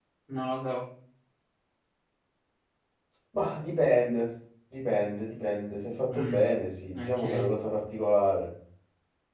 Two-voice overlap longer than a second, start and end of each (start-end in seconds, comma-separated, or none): none